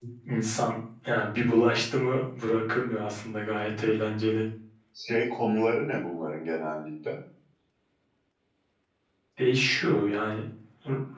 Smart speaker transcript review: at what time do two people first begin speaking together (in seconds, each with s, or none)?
none